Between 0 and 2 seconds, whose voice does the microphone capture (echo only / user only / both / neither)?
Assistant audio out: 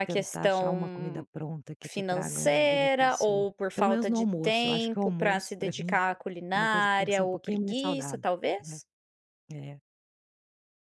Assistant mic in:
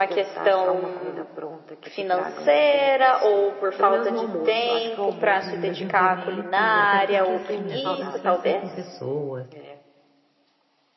echo only